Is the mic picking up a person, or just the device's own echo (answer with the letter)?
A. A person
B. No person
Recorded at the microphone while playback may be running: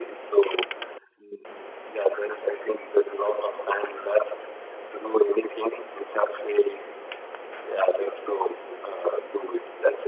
B